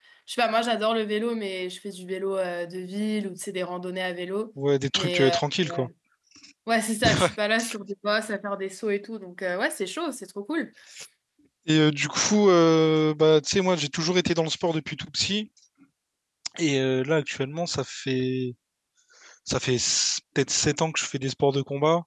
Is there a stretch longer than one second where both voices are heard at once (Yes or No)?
No